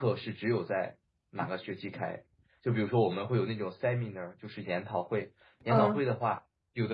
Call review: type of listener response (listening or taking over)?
listening